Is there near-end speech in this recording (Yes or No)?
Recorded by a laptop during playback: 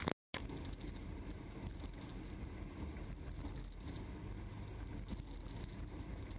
No